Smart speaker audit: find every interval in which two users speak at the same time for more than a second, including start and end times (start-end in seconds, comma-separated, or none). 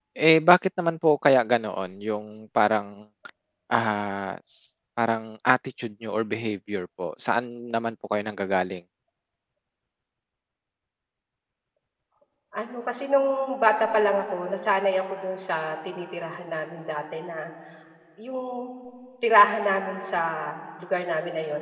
none